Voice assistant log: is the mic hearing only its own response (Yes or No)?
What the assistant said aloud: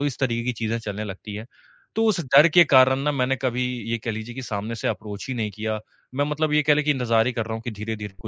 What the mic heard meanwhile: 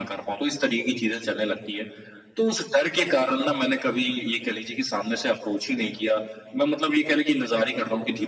Yes